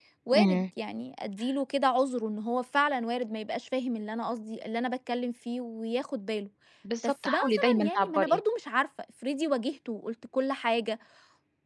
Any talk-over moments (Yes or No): Yes